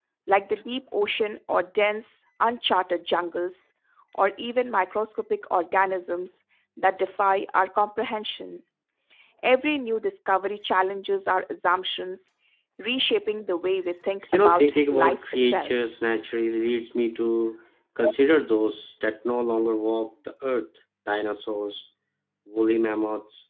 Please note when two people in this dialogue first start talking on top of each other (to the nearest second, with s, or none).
14 s